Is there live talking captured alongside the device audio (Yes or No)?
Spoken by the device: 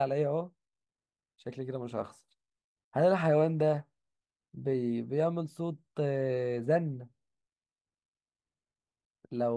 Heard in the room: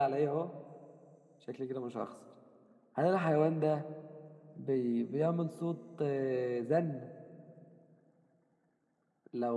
No